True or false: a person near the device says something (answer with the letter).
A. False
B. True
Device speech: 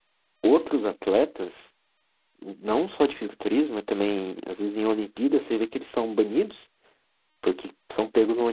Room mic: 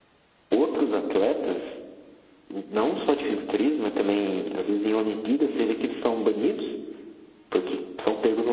A